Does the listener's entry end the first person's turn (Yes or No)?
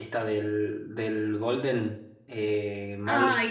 Yes